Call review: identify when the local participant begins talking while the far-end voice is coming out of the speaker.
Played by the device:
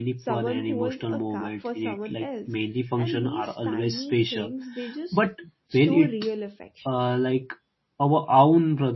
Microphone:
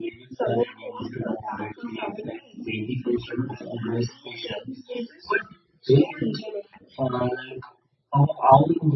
none

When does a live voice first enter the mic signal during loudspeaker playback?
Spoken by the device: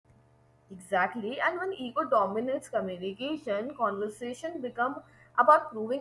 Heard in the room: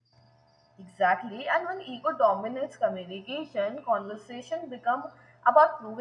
none

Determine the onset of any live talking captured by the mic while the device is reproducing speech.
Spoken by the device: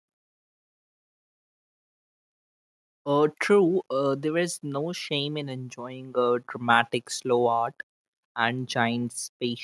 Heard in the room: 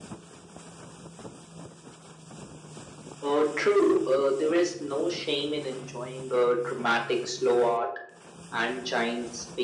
none

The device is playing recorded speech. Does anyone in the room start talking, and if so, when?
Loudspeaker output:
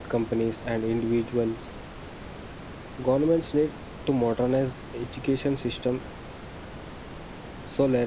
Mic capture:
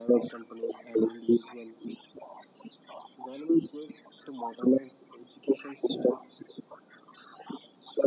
none

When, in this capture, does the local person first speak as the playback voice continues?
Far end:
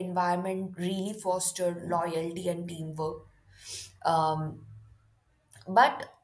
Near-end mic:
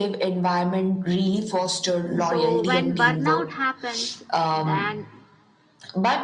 2 s

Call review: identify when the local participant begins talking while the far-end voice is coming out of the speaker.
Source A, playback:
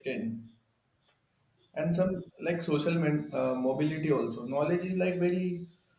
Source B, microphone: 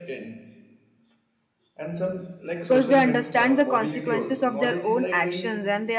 3 s

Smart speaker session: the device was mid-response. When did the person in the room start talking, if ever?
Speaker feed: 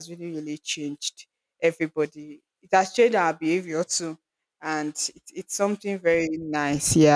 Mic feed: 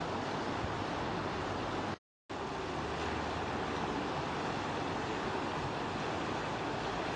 none

